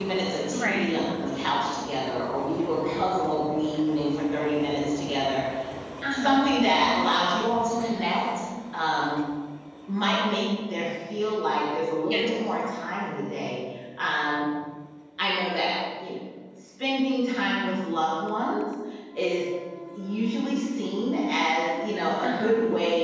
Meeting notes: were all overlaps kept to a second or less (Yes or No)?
Yes